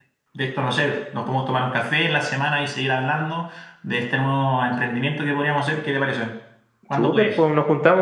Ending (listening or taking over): taking over